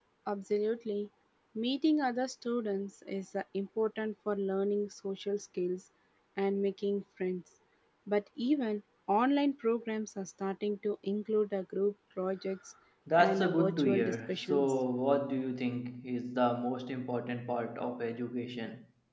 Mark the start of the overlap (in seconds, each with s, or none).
13.2 s